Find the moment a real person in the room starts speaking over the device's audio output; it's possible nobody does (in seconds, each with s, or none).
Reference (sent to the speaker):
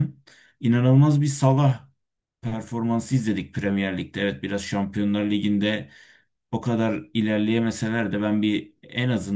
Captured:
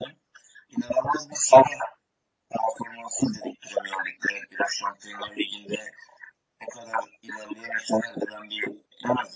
none